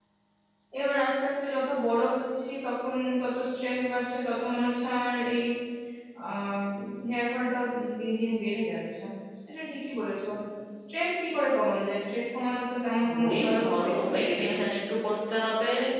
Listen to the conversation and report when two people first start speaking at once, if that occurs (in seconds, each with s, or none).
13.0 s